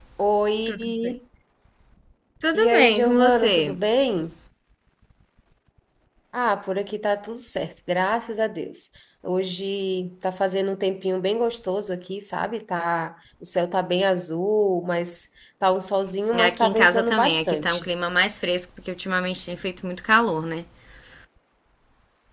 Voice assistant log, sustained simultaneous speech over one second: present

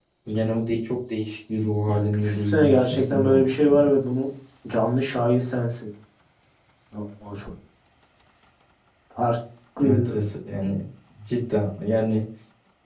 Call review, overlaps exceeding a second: present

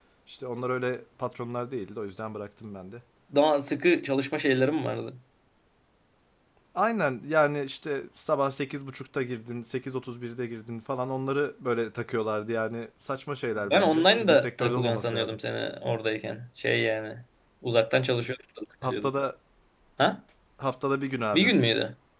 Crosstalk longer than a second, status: present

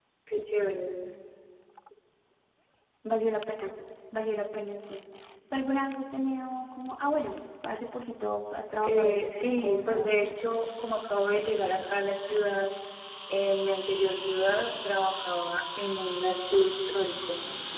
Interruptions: present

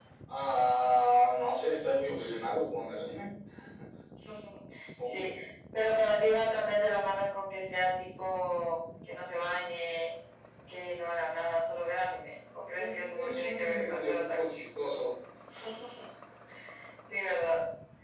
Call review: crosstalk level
present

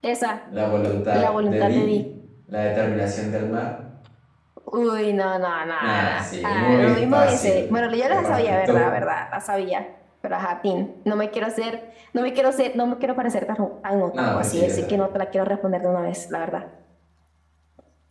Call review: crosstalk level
present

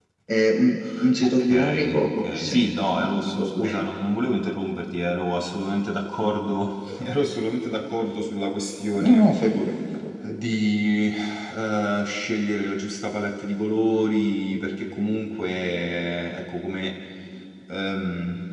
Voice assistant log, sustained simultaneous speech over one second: present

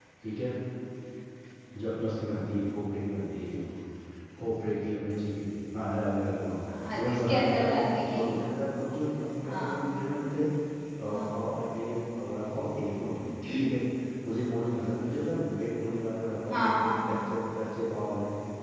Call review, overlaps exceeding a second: present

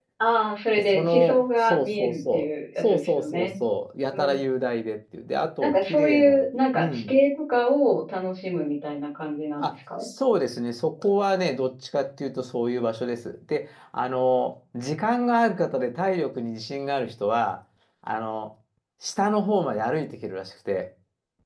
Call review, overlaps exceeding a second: present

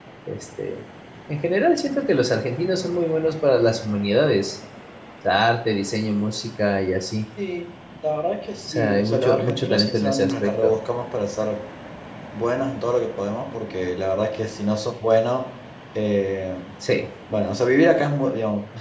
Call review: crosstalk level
present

